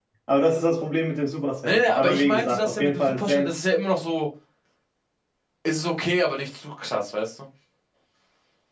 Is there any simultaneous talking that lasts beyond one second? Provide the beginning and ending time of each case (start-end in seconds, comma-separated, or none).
1.6-3.5